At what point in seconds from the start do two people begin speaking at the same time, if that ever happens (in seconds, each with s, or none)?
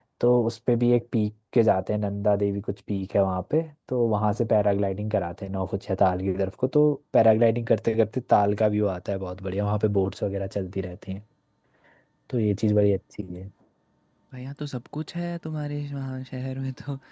none